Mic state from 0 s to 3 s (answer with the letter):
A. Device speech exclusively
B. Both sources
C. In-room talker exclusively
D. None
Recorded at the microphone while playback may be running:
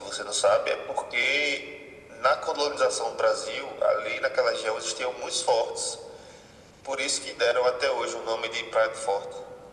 A